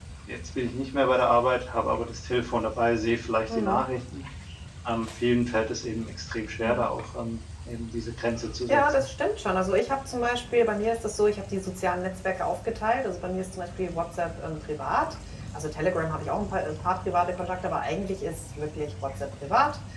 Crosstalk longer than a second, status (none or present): none